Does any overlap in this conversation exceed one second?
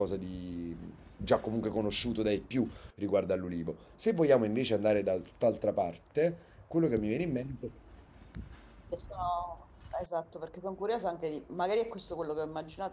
No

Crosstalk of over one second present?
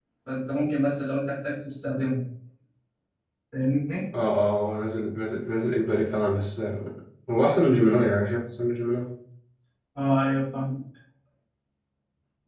No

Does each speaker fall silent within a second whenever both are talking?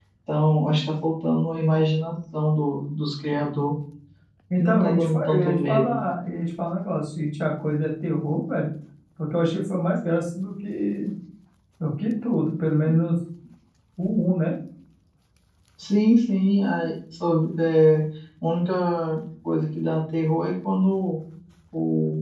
No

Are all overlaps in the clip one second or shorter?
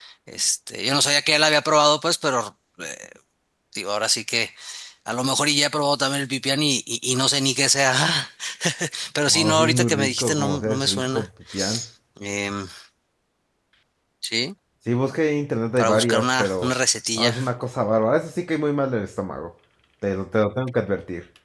No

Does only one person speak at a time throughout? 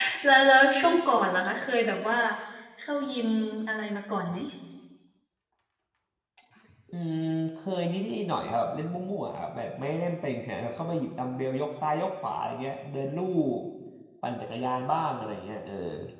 Yes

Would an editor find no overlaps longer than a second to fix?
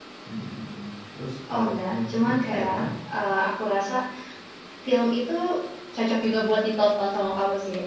No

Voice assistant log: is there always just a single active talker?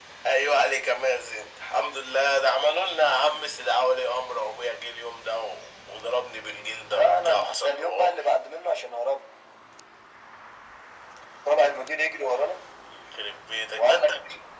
No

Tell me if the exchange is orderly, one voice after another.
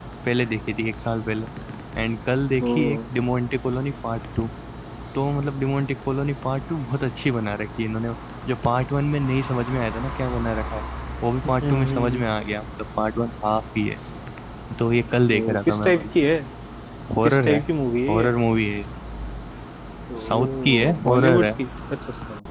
No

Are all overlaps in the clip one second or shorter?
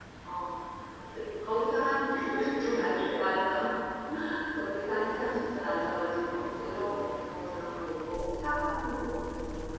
No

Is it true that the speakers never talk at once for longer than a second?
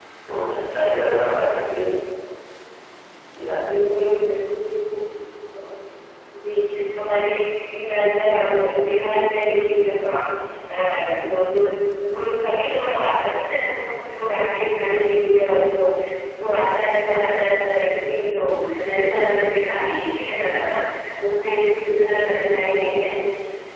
Yes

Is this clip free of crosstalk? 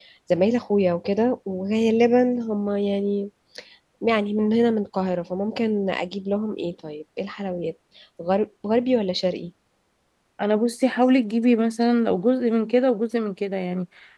Yes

